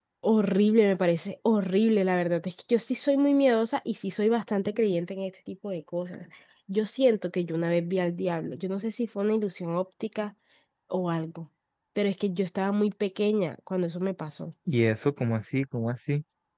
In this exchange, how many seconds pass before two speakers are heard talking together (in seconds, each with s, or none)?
none